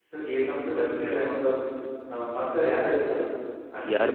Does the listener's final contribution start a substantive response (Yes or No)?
Yes